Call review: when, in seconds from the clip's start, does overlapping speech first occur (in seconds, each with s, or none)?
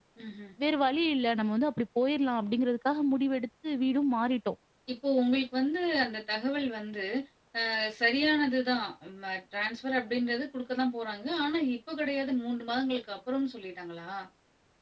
none